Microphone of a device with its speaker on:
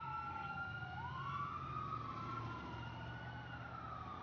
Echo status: none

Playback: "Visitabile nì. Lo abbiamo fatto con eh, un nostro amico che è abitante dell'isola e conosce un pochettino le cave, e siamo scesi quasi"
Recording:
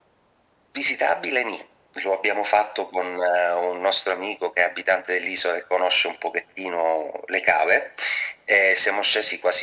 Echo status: present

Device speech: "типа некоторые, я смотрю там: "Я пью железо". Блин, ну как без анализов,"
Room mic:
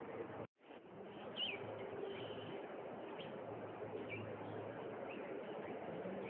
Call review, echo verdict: none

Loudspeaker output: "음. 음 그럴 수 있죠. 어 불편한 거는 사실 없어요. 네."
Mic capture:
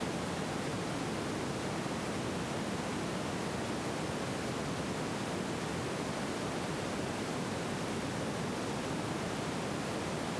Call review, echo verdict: none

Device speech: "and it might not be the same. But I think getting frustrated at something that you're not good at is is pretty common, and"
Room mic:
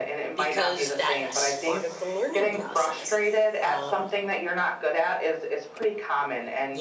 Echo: present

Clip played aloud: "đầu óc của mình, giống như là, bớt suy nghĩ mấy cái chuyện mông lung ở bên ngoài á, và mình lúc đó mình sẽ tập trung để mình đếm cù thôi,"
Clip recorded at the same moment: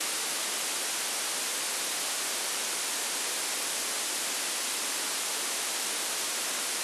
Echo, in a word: none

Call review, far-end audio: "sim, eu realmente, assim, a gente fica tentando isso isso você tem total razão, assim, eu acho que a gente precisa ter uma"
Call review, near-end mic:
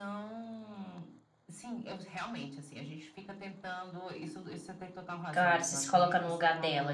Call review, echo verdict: present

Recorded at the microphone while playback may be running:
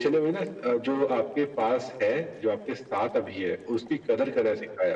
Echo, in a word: present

